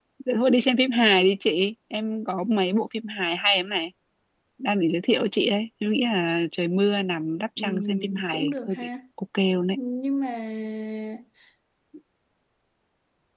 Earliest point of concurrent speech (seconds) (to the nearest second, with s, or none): 8 s